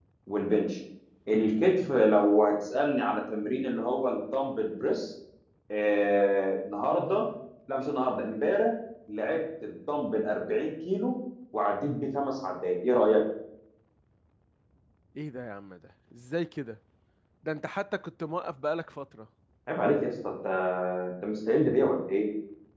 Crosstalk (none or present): none